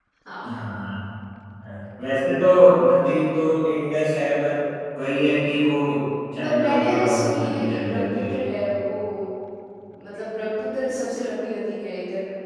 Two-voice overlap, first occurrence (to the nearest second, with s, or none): 6 s